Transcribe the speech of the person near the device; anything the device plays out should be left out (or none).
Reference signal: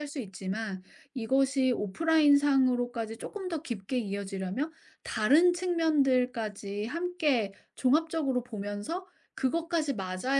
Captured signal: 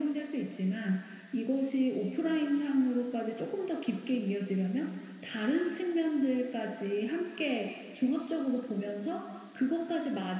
none